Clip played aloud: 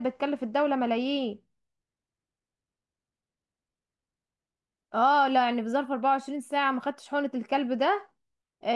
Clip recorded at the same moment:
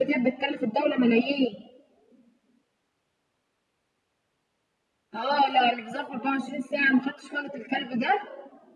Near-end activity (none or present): none